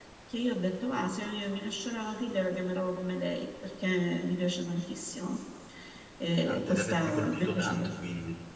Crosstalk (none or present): present